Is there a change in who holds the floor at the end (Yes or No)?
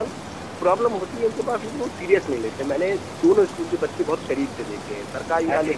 No